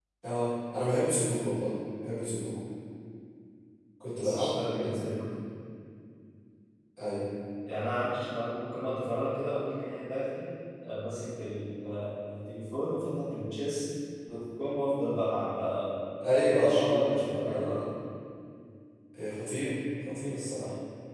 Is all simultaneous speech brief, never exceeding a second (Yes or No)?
No